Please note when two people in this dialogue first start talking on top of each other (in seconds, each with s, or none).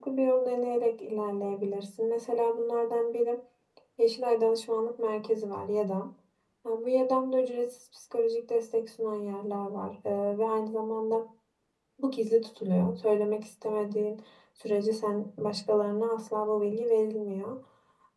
none